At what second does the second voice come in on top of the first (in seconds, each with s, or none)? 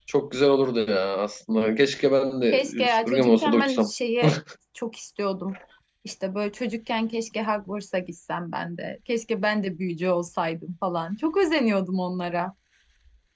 2.5 s